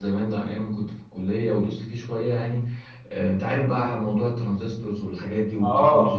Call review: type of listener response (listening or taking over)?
taking over